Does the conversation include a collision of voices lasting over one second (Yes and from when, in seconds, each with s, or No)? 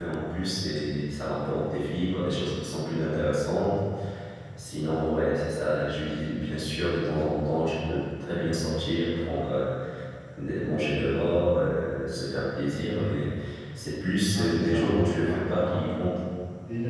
Yes, from 14.3 s